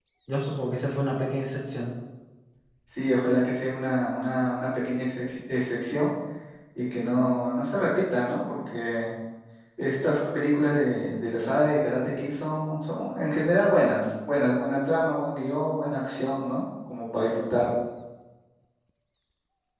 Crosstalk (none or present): none